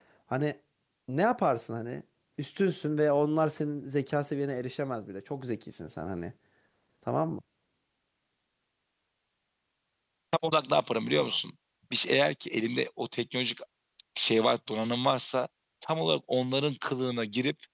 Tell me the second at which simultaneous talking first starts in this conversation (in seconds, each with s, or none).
none